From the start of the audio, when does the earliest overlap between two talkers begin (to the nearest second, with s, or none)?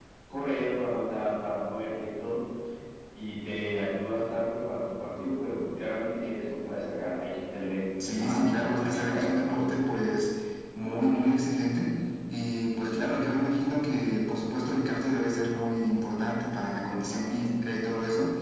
8 s